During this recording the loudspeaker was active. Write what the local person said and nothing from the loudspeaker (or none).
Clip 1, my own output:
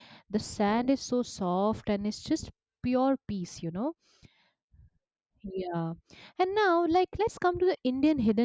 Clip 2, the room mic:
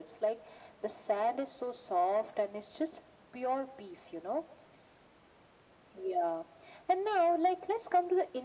none